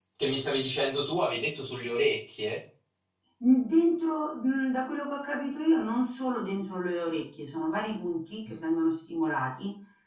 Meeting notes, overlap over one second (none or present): none